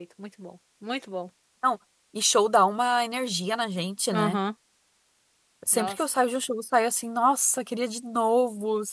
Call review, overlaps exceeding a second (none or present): none